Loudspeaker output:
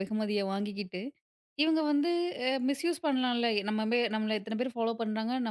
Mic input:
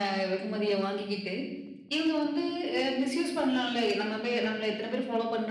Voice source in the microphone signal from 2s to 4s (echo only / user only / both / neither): echo only